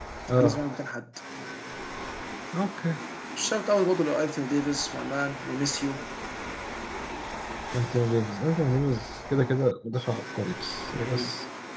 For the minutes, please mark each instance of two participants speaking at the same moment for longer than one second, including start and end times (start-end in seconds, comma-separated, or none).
none